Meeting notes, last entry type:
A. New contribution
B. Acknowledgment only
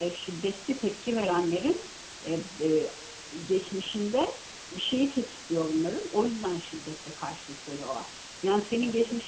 B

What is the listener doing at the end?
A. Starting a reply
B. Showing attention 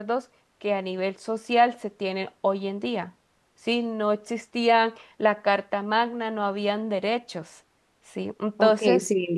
A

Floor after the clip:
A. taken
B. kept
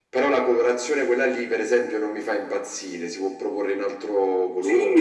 A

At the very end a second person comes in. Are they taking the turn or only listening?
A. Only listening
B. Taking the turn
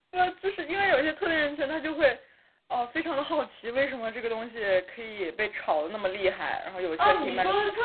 B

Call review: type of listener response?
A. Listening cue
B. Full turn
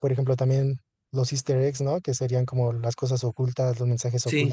A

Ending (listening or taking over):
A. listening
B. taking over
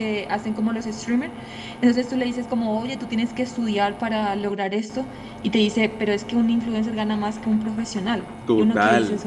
B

